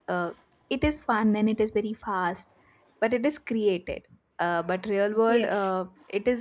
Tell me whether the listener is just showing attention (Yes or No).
Yes